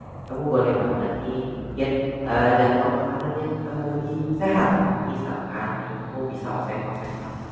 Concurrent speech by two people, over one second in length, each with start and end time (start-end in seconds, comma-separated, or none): none